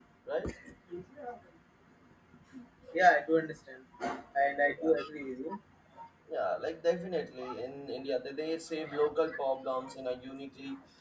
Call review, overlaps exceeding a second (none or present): none